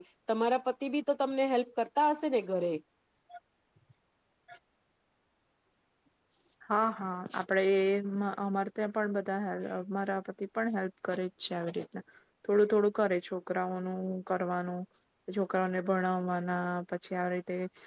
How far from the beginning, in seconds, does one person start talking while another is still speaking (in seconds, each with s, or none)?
none